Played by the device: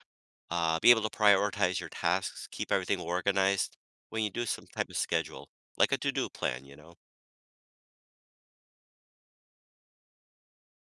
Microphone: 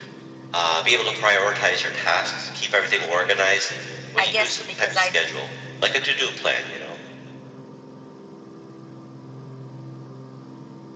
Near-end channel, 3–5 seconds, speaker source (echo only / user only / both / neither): both